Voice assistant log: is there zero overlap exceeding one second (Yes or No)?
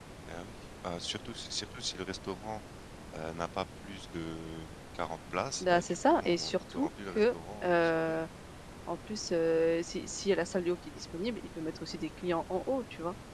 No